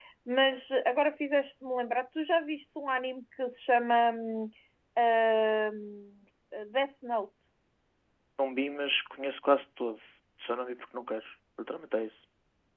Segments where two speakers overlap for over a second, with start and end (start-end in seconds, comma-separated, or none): none